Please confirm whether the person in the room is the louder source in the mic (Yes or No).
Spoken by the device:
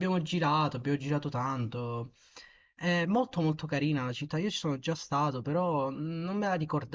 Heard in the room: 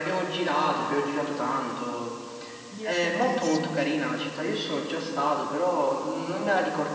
No